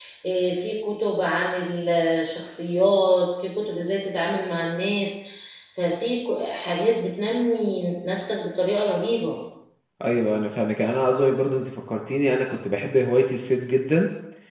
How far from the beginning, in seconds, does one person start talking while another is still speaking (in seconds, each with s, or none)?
none